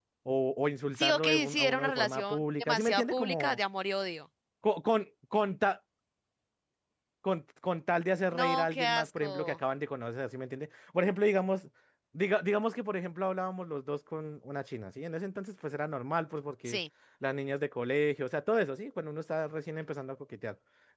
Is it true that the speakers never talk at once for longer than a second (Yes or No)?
No